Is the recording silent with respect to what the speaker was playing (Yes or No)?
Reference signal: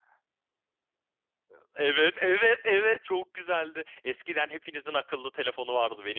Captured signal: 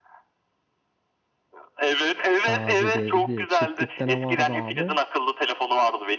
No